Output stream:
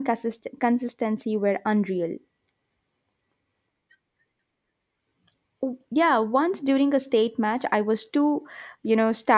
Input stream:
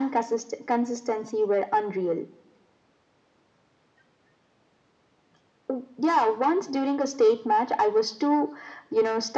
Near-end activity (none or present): none